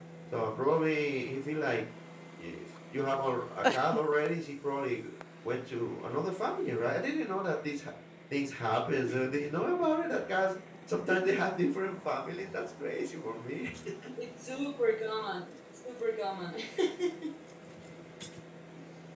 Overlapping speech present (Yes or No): No